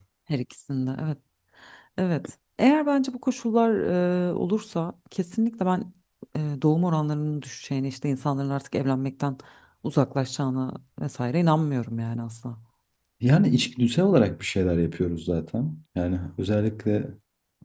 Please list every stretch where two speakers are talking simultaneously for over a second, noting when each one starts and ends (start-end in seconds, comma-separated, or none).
none